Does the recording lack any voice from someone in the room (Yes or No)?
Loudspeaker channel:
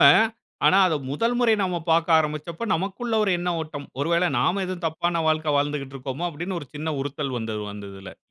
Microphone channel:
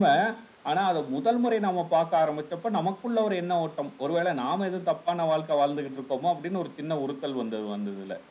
Yes